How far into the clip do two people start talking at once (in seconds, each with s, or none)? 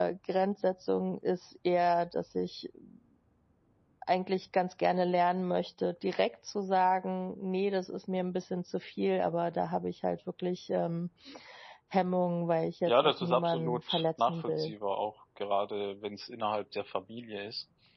12.9 s